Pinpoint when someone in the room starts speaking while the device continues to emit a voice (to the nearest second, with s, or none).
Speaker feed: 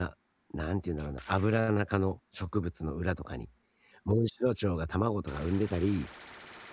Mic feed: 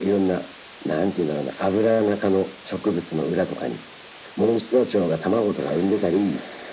none